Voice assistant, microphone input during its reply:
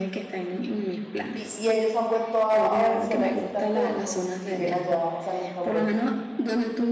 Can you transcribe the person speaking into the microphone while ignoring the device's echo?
¿Y, y ellos han vuelto a, a Venezuela a visitarte o, o siguen allá? O sea, nunca han vuelto.

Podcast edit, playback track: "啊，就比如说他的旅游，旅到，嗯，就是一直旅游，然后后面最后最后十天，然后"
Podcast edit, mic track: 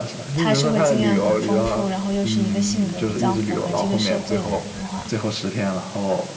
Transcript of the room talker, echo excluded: 他社会经验很丰富，然后又是一个性格比较符合这个社会的人的话，

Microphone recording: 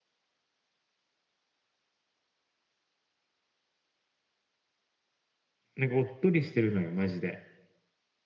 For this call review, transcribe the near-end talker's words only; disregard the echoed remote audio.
なんかおっとりしてるのよ、マジで。

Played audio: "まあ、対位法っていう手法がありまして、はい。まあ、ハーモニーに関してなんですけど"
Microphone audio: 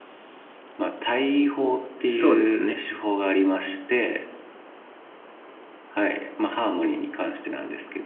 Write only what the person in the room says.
そうですね。

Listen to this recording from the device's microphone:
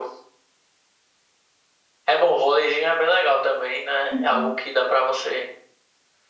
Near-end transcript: Uhum.

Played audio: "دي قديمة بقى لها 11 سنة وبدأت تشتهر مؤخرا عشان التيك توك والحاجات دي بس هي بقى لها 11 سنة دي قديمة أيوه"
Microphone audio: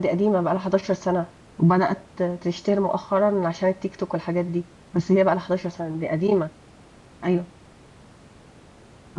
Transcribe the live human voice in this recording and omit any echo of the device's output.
none

